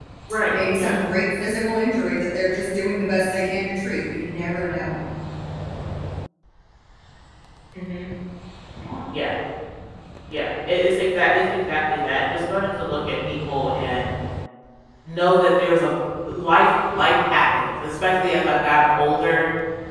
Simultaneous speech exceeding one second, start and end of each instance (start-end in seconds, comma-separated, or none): none